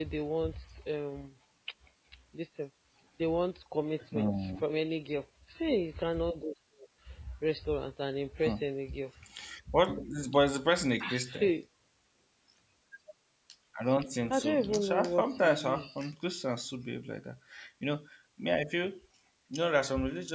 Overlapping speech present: Yes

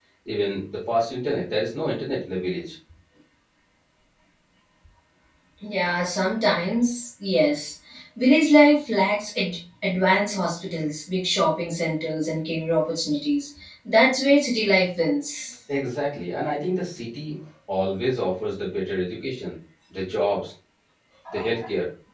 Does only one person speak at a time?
Yes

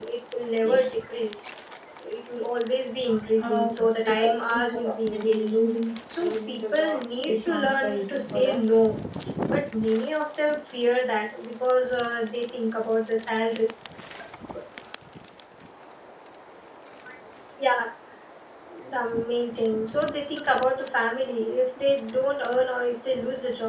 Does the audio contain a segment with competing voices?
Yes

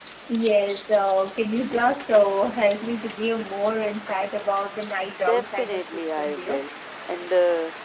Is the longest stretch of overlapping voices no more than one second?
No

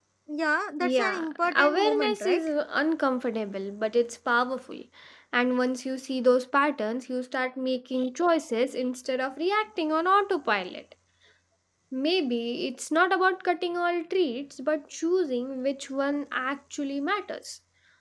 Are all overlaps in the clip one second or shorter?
No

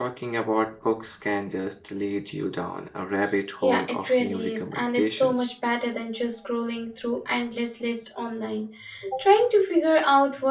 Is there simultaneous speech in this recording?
Yes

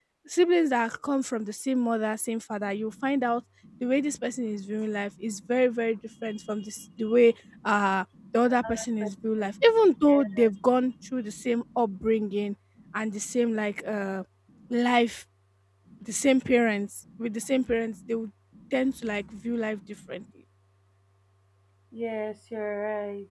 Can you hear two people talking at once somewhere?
Yes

